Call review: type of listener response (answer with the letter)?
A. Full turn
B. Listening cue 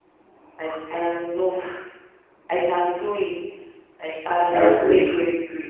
B